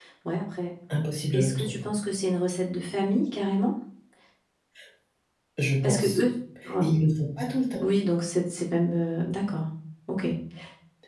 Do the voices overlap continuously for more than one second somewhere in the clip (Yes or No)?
No